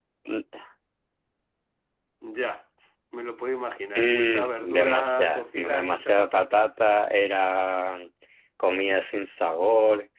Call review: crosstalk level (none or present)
present